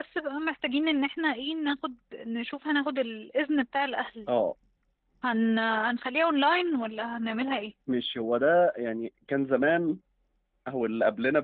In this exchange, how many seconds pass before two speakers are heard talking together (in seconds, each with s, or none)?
none